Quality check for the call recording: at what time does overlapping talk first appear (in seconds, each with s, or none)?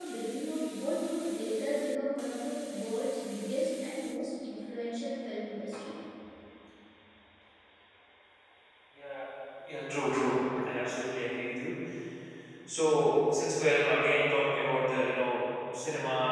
none